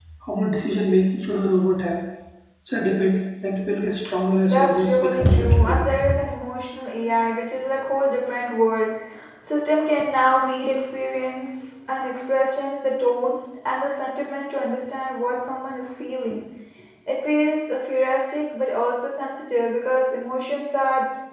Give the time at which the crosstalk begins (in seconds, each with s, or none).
4.4 s